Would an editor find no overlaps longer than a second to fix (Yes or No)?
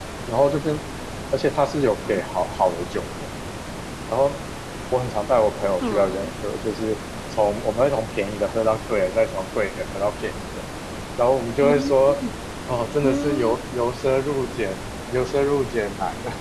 Yes